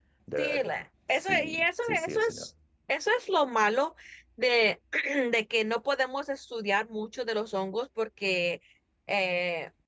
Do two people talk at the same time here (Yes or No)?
Yes